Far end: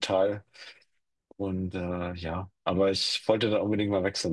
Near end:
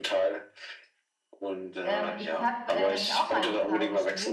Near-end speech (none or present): present